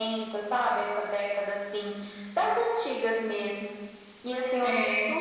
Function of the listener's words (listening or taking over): listening